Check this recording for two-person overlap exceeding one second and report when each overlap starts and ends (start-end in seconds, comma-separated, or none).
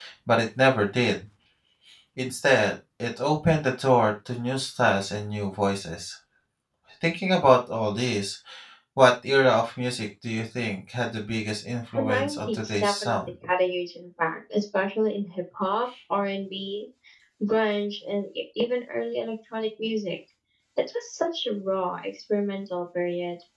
11.9-13.2